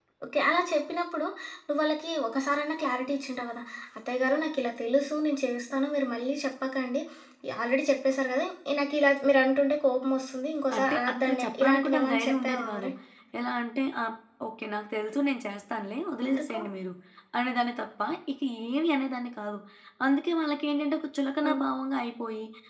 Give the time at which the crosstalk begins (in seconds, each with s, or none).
10.8 s